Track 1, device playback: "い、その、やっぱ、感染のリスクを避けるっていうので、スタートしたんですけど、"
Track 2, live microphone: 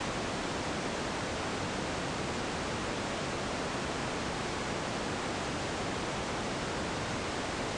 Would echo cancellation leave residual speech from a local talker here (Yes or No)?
No